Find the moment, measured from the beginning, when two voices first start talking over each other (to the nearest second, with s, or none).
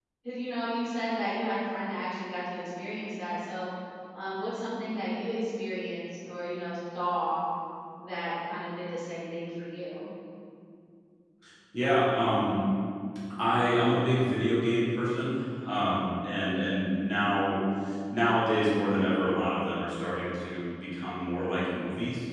none